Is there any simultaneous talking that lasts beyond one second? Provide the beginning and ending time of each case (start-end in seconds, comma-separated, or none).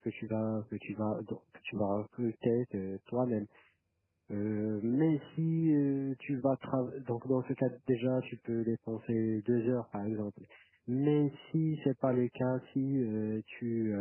none